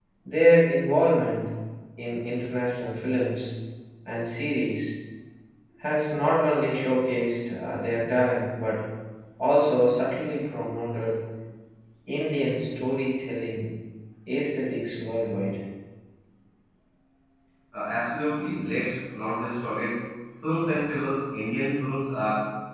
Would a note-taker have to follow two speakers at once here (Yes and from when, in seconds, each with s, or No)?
No